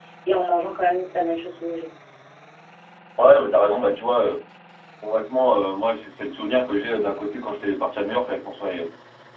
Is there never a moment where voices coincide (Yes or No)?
Yes